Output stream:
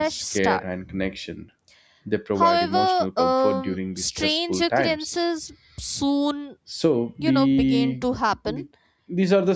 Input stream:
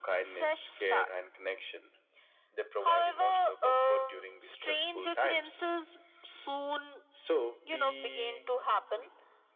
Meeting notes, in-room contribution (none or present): none